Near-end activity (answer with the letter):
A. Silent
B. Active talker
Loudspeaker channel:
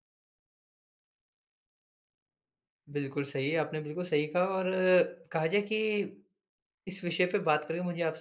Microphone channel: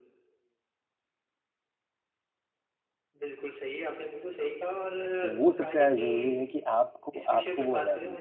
B